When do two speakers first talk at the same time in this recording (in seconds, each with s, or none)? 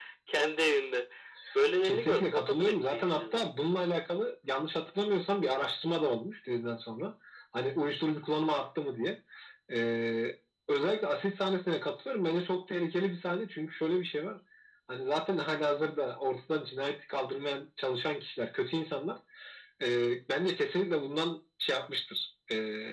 1.8 s